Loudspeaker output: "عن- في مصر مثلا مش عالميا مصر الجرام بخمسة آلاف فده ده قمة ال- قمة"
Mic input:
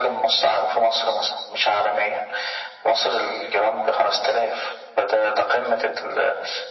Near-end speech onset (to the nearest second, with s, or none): none